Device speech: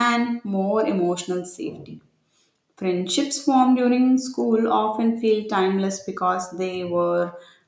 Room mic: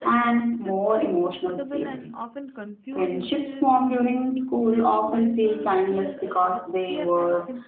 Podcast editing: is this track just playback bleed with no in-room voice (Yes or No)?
No